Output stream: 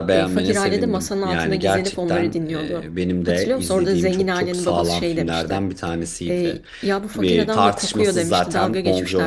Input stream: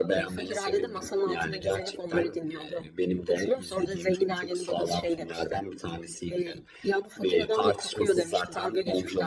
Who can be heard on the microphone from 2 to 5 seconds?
echo only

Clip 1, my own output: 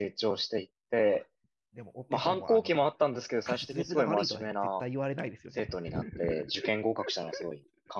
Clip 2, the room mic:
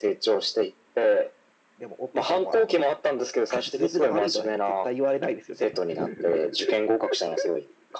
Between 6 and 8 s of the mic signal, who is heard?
echo only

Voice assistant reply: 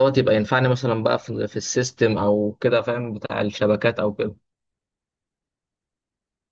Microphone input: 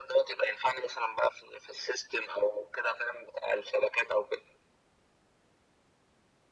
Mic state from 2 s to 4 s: echo only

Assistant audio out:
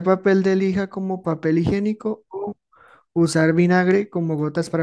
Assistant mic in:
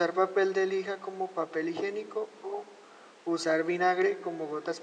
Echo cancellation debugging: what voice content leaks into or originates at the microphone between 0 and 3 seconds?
echo only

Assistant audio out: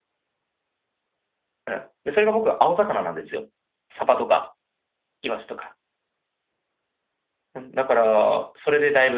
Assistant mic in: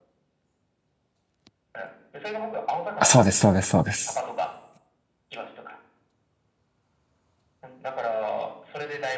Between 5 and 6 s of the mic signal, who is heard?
echo only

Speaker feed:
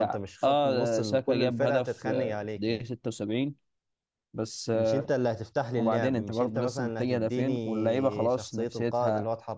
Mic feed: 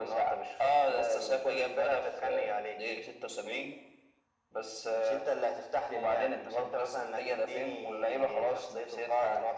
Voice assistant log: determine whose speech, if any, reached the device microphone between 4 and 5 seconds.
echo only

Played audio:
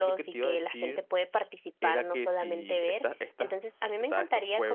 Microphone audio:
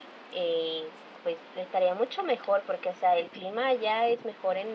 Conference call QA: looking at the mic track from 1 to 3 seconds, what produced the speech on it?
user only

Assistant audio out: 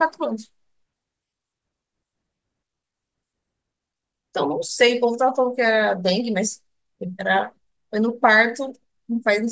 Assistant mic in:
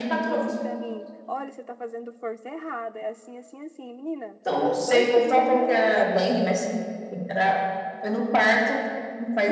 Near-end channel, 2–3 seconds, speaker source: user only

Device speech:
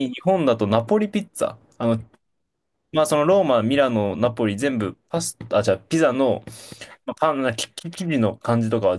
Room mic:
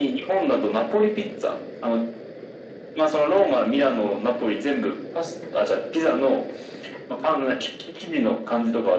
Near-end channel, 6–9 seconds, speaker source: echo only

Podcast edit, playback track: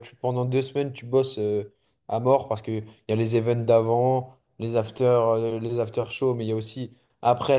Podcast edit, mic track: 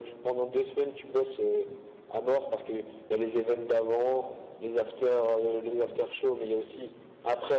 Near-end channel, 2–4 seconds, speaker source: echo only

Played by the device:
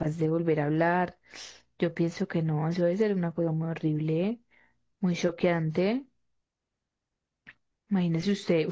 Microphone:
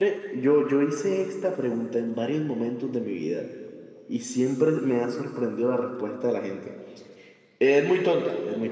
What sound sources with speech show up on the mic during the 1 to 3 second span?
user only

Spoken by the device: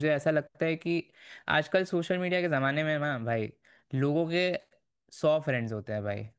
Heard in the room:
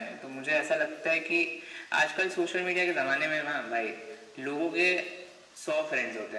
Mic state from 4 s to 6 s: echo only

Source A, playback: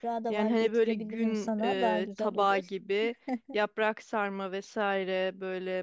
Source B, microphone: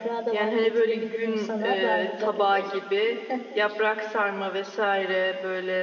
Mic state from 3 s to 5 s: echo only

